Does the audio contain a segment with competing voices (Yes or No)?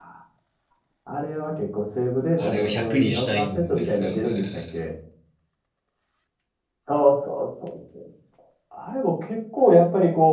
Yes